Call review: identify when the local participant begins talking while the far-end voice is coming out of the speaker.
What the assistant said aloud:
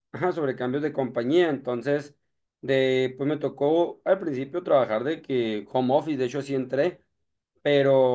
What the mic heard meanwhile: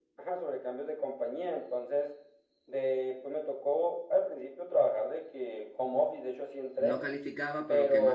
7 s

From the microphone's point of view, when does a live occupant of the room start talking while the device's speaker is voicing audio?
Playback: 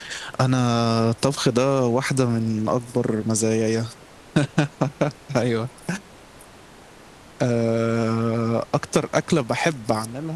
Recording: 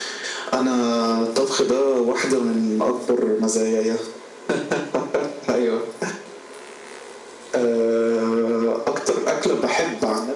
none

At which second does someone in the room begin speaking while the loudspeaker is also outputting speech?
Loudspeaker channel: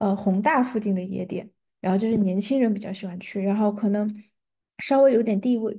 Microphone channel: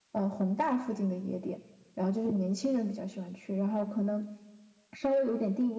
none

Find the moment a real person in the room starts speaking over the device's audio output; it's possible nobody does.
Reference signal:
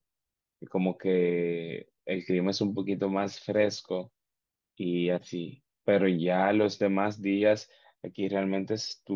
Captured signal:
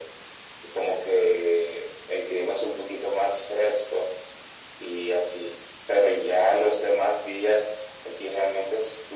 none

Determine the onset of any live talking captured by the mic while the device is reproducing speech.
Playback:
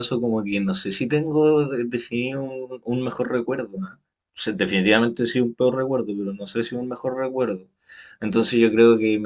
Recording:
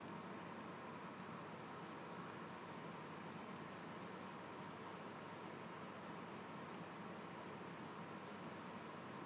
none

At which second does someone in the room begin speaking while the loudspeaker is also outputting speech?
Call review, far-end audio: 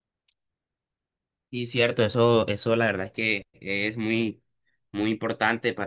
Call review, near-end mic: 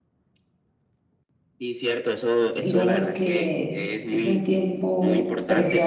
3 s

